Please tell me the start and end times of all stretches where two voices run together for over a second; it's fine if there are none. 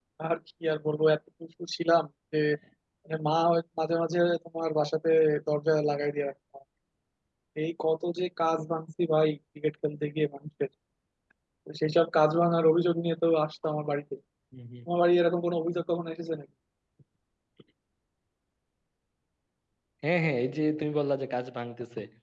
none

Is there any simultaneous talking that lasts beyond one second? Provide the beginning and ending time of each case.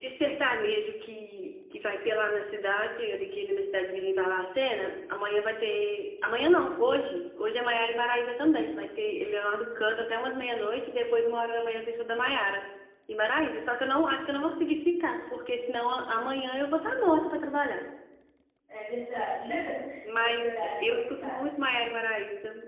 20.2-21.4

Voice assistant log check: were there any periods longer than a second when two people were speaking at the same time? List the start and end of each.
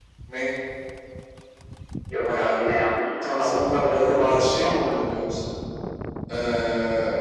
3.2-4.7

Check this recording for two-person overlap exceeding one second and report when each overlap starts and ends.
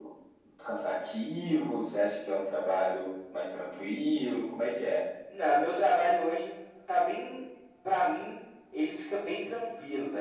none

